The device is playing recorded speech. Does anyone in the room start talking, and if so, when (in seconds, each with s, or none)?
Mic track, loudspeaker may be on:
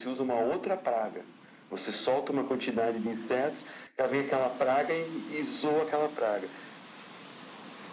none